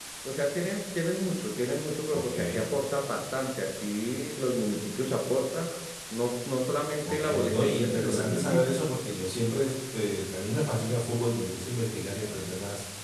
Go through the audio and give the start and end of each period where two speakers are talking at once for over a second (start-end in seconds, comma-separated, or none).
7.0-8.9